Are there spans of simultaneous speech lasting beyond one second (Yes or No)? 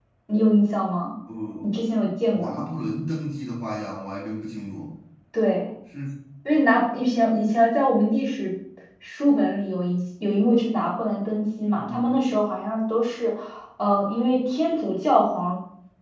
No